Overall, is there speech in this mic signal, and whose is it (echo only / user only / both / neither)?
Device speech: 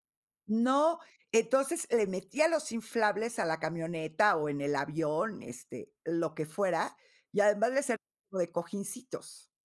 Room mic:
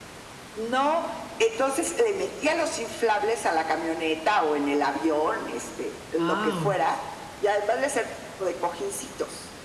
both